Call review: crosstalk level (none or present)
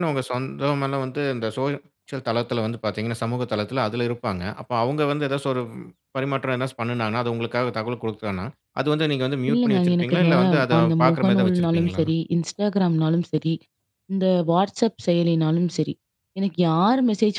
present